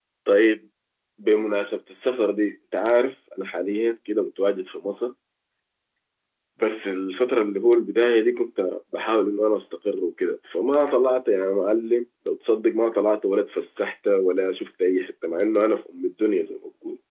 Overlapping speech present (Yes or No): No